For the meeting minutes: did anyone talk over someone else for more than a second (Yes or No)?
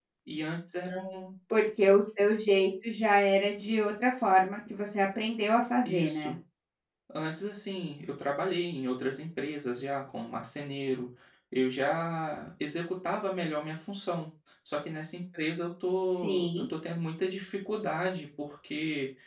No